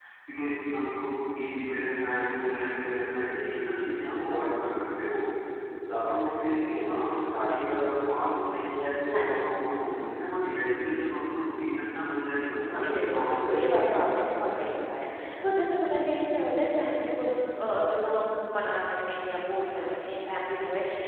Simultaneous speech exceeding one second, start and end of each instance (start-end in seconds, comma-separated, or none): 12.7-14.0